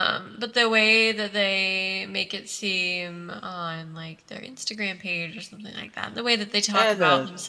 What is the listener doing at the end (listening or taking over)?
listening